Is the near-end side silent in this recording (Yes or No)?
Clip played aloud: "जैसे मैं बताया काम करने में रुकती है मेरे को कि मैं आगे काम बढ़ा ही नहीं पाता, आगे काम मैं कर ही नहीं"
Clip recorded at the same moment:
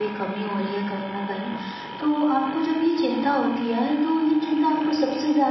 No